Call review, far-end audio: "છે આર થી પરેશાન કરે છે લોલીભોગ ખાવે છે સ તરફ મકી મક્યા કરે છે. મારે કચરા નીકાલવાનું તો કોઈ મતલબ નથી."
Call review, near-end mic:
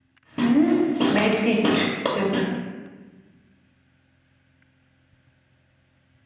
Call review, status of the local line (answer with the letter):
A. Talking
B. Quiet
A